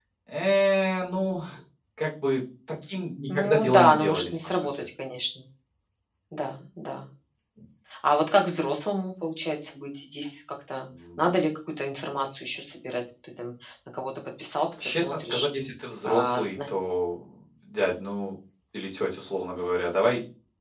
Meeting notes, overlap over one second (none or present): present